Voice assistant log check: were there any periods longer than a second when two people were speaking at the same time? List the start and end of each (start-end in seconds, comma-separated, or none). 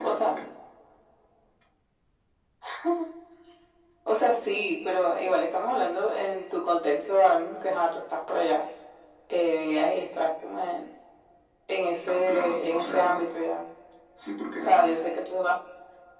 12.1-13.3